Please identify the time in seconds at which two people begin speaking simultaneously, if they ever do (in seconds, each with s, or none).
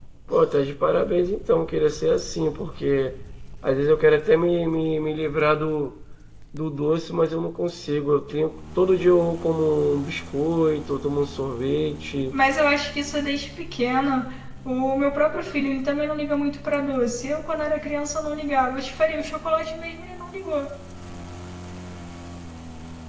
none